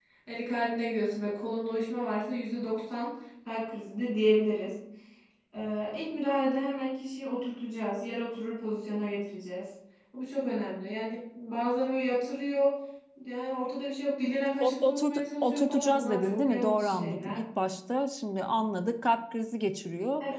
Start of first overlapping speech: 15 s

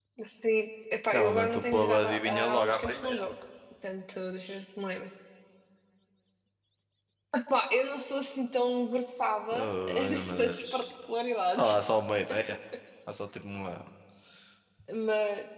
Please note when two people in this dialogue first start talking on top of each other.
1 s

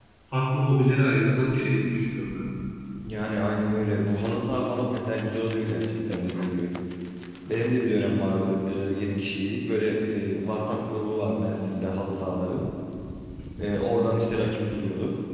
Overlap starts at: none

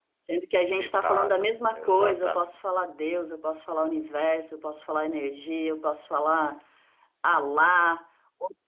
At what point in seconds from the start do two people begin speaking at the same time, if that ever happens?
1 s

